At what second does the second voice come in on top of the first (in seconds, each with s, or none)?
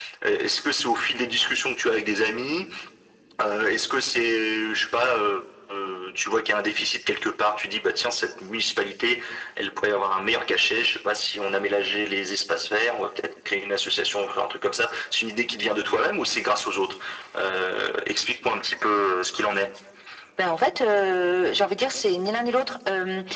none